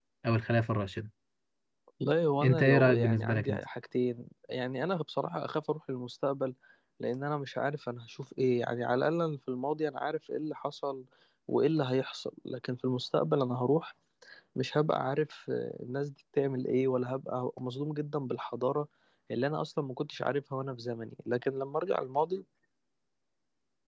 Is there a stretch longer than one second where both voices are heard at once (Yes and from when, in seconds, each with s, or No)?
Yes, from 2.4 s